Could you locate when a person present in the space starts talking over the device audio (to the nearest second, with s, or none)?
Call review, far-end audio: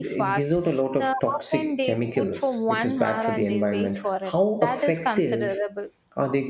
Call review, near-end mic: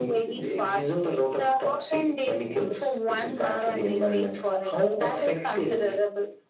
none